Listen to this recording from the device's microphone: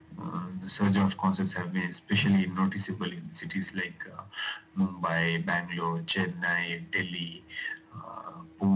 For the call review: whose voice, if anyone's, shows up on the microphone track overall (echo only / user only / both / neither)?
echo only